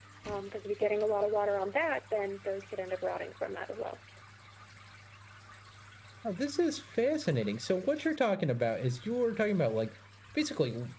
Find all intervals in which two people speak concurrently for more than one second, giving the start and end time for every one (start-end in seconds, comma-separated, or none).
none